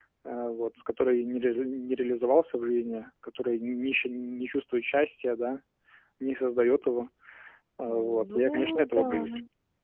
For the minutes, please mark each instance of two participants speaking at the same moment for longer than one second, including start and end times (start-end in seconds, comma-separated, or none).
7.9-9.3